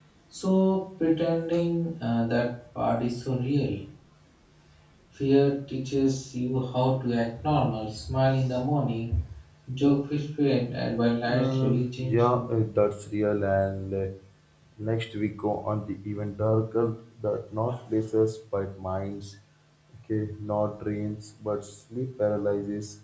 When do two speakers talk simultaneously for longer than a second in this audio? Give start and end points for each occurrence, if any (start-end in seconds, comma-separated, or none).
11.3-12.5